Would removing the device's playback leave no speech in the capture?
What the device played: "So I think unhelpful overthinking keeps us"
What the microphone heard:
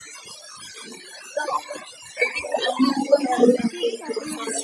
No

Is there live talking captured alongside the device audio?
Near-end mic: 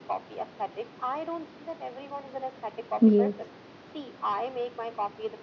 Yes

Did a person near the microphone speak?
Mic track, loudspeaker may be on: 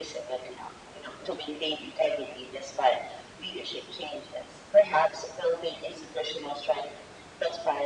No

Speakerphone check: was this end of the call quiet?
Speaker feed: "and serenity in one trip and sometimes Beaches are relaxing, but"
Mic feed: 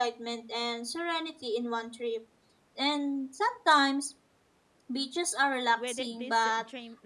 No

